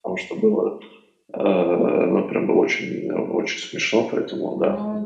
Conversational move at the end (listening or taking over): taking over